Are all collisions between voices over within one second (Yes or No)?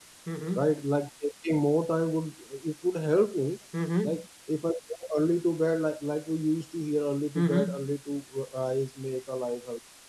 Yes